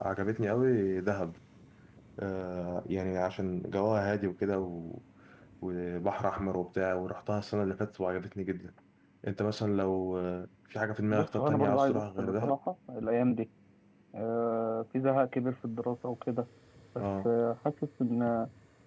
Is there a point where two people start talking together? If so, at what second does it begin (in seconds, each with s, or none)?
11.1 s